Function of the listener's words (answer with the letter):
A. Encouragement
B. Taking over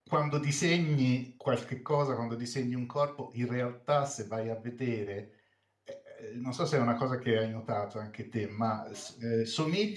A